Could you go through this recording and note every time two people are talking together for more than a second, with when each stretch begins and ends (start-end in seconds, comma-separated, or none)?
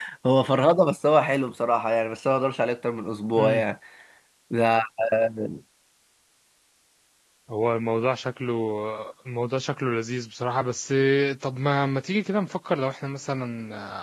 none